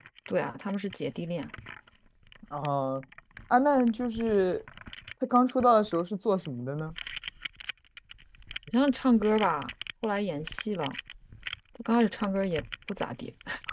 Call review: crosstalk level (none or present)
none